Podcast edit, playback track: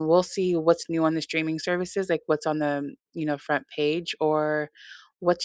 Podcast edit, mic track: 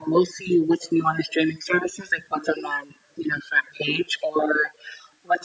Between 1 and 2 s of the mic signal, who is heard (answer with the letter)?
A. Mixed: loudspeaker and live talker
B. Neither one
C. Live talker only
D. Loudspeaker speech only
D